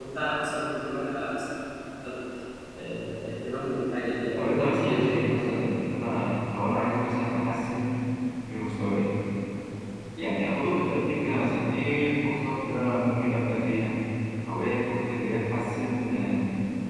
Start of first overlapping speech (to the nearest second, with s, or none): 4 s